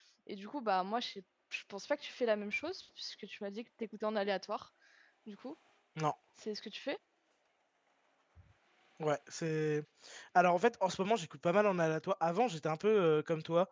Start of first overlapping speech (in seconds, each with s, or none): none